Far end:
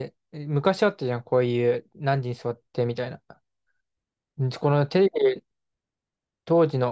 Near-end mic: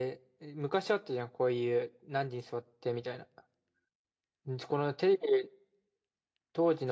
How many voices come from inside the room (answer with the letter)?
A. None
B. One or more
A